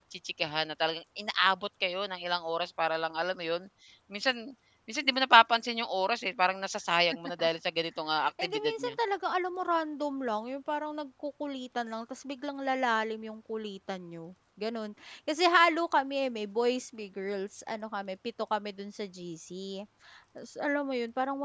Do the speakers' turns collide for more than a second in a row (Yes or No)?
No